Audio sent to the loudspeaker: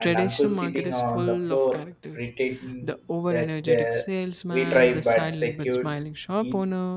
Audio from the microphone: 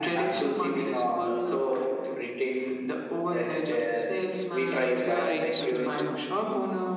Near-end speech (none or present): present